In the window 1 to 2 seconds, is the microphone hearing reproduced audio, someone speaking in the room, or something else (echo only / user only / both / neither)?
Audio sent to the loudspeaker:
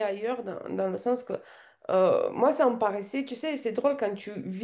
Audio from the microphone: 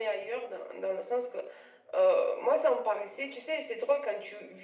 echo only